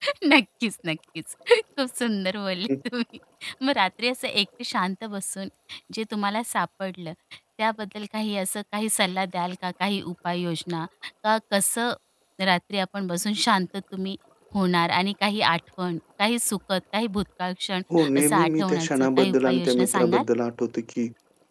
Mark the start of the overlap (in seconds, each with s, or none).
18.2 s